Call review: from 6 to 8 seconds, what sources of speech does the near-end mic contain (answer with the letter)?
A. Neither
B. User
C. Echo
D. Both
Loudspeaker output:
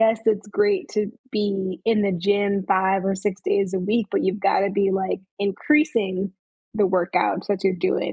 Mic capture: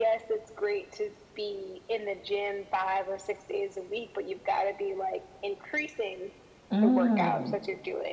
D